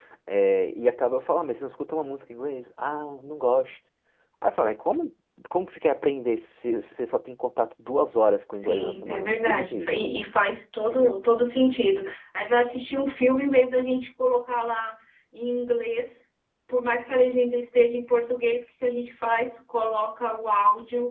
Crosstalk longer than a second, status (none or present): present